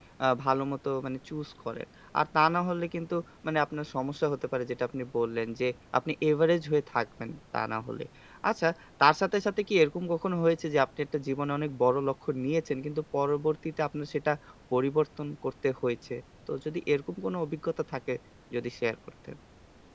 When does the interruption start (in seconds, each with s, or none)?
none